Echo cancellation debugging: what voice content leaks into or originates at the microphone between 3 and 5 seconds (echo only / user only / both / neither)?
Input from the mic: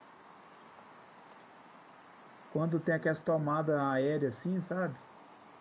user only